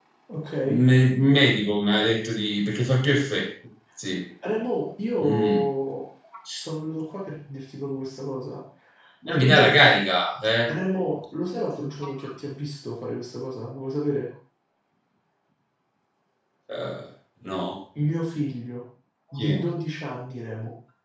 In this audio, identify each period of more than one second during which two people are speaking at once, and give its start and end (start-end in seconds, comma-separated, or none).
none